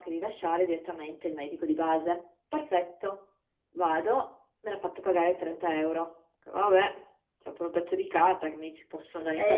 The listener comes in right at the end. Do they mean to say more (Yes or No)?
Yes